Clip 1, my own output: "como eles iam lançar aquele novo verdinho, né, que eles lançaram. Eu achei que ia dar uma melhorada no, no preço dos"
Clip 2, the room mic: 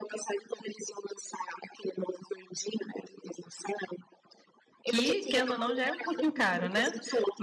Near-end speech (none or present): present